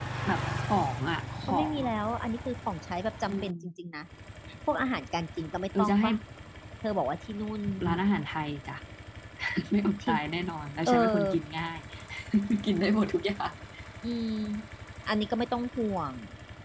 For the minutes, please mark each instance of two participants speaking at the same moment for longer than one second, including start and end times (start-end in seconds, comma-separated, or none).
none